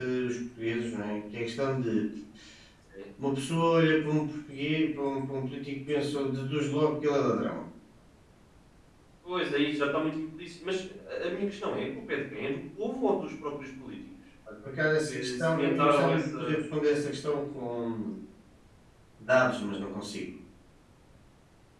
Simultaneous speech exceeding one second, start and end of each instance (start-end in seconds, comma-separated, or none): 15.1-16.6